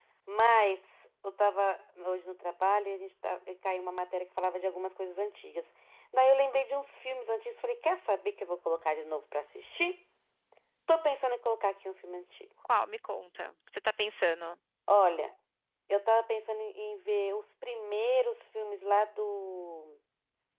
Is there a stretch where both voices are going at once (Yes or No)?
No